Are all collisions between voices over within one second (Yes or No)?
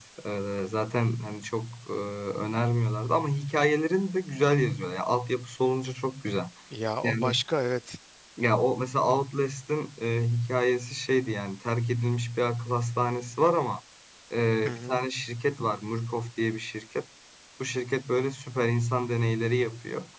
Yes